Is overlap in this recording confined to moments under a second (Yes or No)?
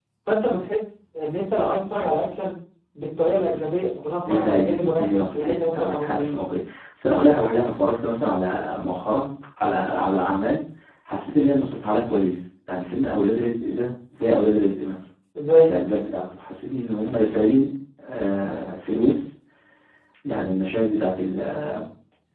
No